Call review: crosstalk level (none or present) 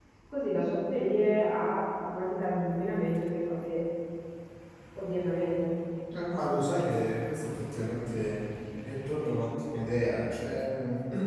none